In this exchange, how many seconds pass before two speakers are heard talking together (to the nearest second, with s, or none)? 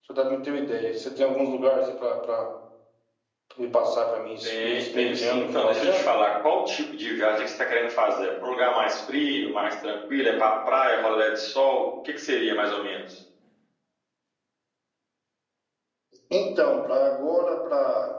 4 s